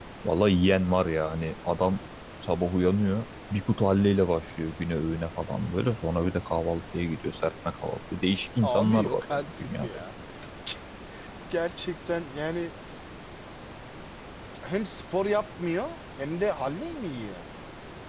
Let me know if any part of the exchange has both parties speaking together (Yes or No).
Yes